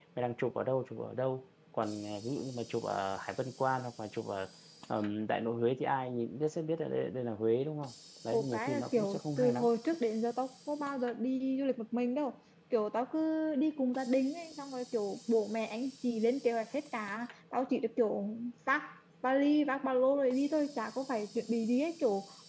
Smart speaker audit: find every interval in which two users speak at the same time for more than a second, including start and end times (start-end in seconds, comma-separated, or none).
8.3-9.6